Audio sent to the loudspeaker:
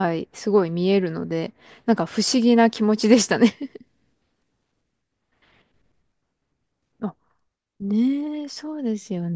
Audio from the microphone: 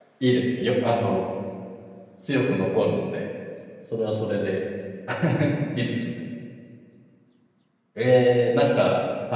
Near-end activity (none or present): present